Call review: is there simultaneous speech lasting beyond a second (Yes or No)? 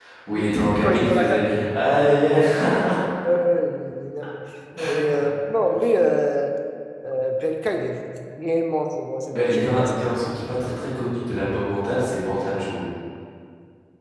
Yes